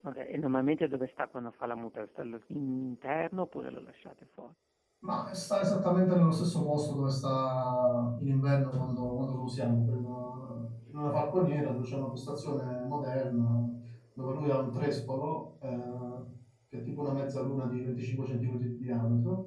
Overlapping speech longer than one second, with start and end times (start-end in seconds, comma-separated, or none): none